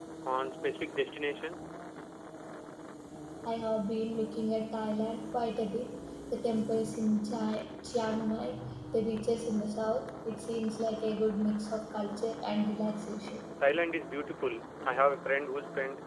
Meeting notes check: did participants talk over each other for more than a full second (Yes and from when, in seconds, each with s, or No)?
No